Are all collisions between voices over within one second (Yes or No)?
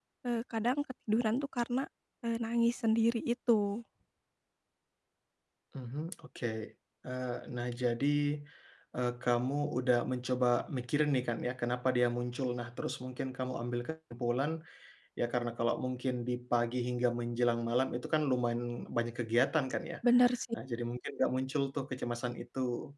Yes